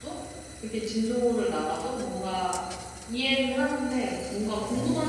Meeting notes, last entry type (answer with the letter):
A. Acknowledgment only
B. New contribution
A